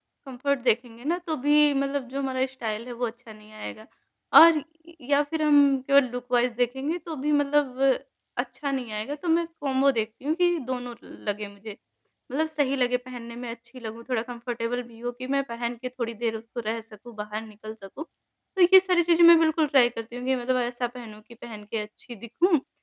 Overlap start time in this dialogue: none

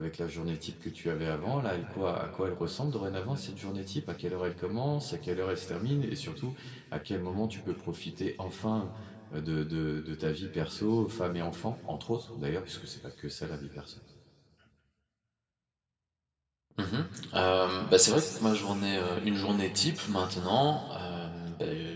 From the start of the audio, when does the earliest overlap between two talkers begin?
none

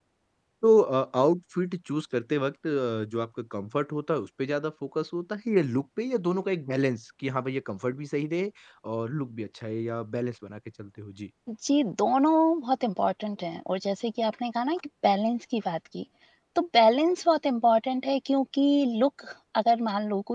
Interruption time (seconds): none

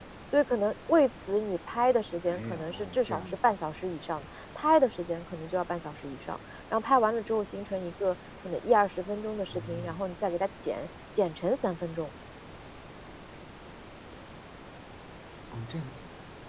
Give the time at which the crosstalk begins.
2.1 s

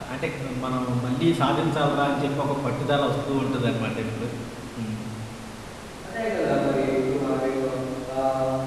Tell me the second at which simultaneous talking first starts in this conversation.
none

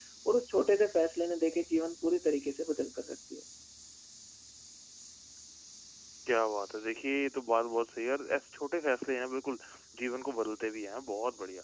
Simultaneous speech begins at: none

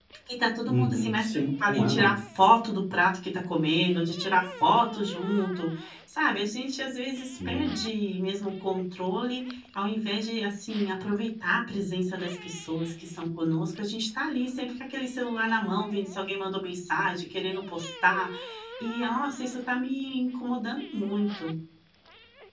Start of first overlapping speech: 0.7 s

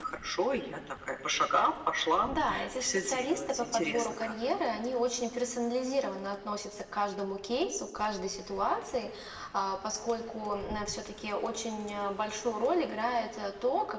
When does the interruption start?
2.8 s

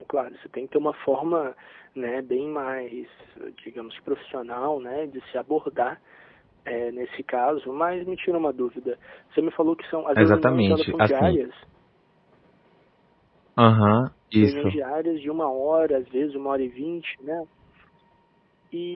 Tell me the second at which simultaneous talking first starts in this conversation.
10.2 s

